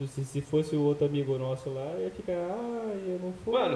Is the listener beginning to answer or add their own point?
Yes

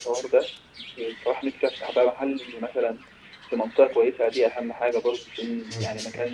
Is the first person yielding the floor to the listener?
Yes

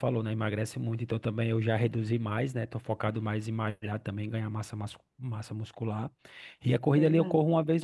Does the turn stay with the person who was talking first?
Yes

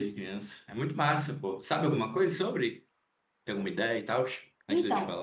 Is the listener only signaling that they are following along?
No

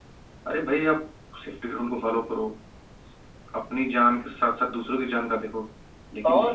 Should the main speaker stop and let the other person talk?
Yes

